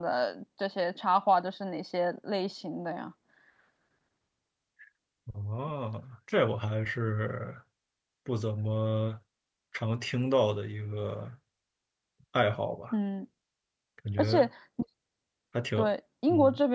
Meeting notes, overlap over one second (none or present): none